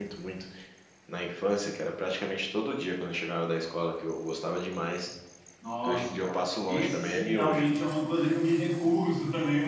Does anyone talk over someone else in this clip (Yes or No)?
Yes